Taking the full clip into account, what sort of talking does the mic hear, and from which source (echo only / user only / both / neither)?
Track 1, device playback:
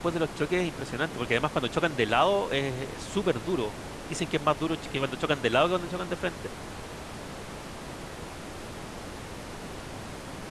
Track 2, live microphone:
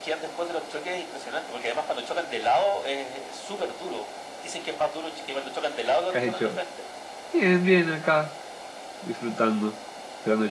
both